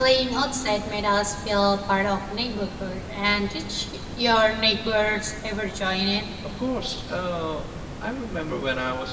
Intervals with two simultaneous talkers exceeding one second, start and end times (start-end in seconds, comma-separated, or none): none